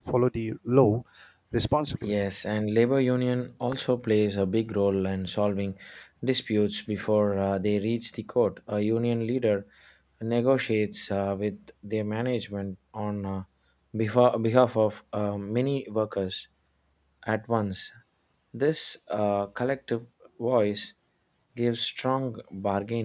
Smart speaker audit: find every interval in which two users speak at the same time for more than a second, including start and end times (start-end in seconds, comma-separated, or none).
none